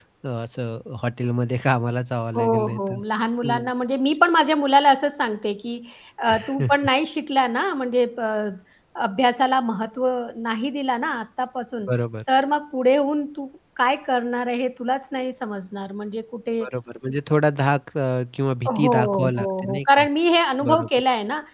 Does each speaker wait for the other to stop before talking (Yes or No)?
No